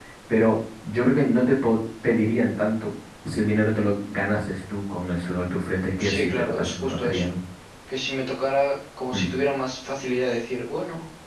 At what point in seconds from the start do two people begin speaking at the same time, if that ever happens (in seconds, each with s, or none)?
6.0 s